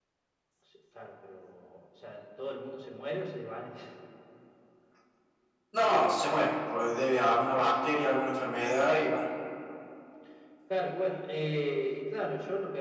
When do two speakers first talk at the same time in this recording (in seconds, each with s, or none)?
none